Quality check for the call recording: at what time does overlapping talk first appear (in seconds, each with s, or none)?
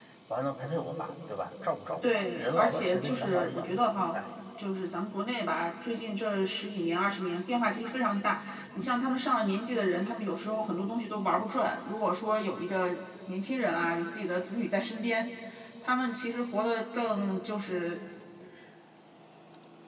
2.0 s